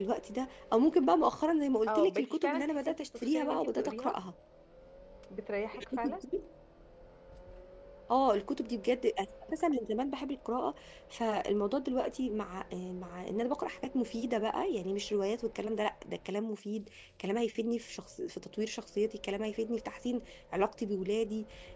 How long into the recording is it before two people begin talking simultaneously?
1.9 s

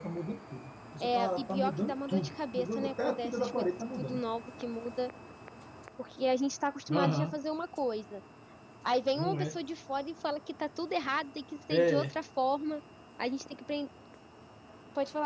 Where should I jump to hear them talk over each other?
1.0 s

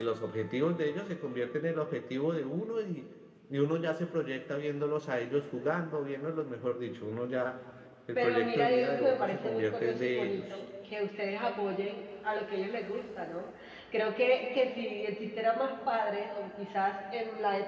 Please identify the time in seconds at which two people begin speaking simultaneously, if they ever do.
8.2 s

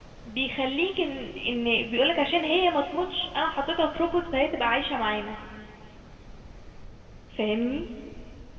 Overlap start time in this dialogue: none

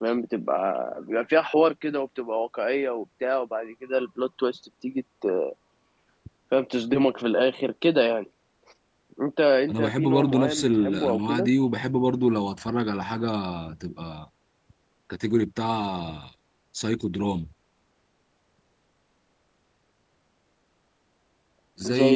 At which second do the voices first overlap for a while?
9.7 s

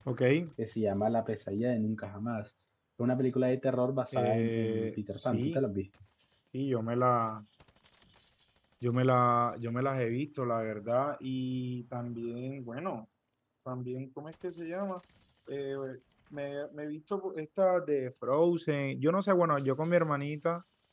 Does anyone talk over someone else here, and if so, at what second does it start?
4.1 s

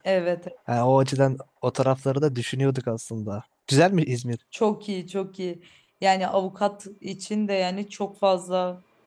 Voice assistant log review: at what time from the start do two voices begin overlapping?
none

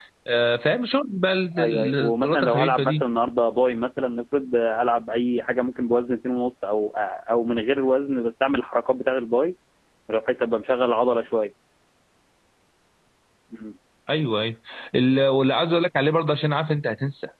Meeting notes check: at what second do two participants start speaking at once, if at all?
1.6 s

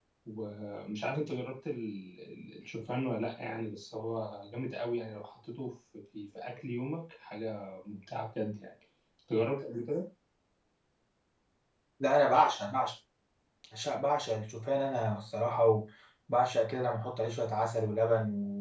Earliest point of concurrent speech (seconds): none

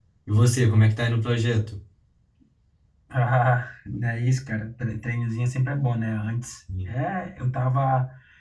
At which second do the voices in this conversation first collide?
none

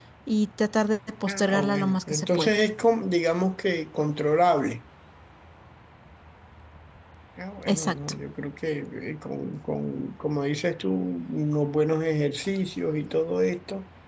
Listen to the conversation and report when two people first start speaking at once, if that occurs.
1.3 s

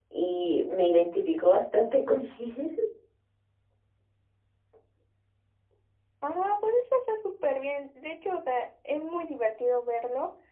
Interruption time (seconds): none

